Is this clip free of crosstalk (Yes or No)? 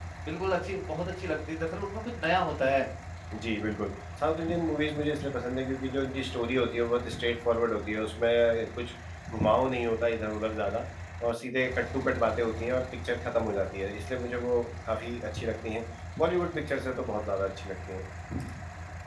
Yes